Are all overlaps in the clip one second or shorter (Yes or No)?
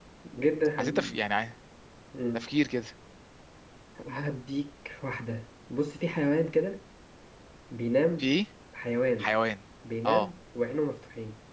Yes